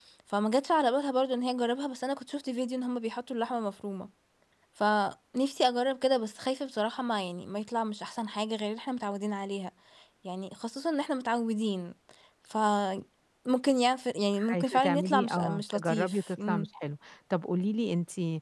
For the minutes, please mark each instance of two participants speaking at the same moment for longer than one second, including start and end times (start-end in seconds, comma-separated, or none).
14.5-16.7